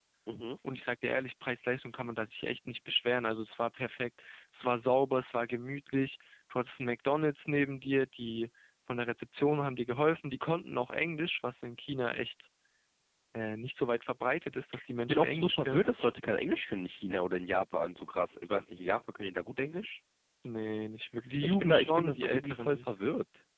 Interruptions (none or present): present